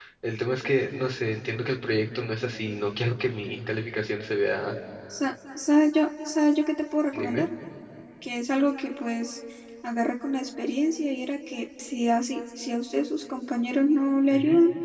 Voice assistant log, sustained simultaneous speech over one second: none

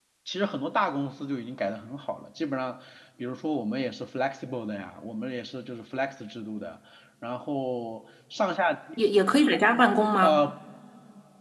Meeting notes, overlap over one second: none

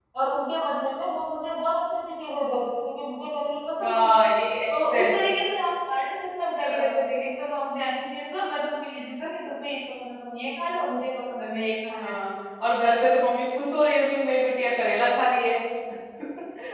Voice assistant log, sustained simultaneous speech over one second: none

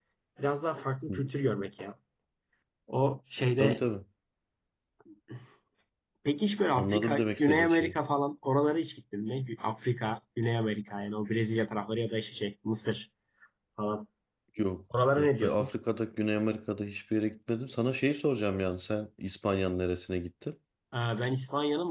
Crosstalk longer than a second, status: present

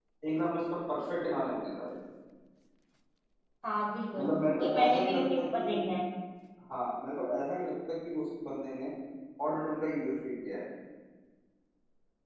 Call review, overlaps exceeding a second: present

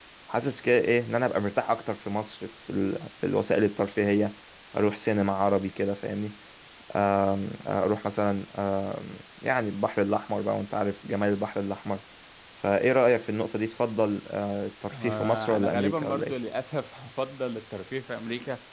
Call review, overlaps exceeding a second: present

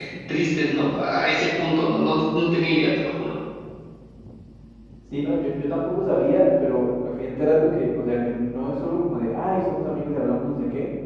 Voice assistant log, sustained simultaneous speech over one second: none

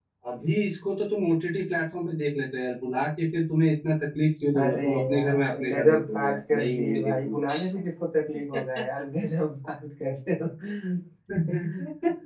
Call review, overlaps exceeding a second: present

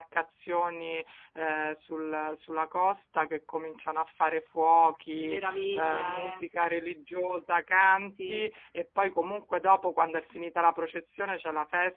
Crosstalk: present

